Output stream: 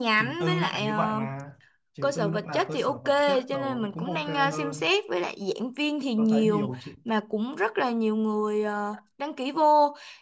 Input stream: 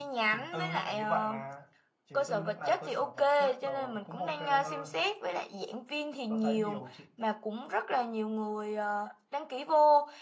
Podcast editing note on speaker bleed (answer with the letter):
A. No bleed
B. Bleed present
B